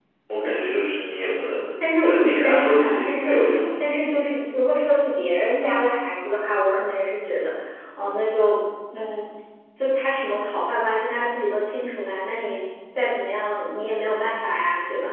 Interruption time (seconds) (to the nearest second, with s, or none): 2 s